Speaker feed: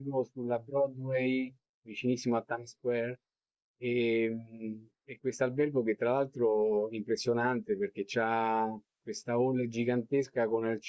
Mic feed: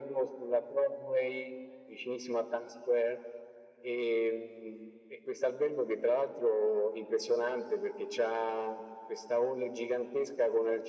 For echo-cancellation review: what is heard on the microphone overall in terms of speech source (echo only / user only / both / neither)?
echo only